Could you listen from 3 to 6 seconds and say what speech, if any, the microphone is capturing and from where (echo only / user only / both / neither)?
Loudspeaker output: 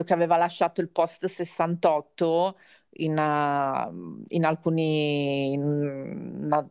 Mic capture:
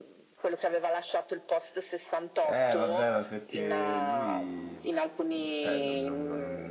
both